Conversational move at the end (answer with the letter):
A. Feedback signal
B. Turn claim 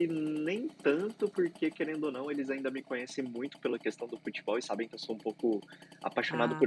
A